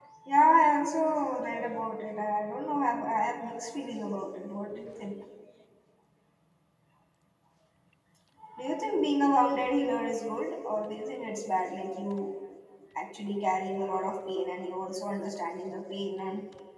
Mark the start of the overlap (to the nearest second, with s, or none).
none